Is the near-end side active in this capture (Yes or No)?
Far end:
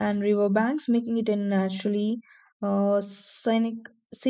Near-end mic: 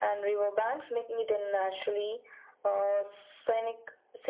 No